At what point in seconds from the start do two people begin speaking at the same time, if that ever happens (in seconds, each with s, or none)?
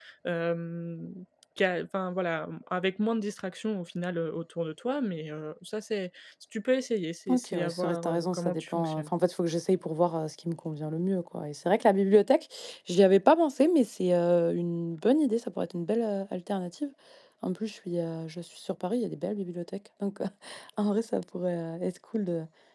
7.3 s